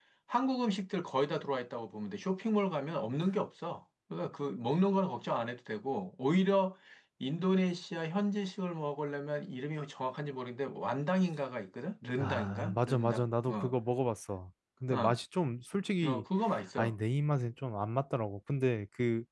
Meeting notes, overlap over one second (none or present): present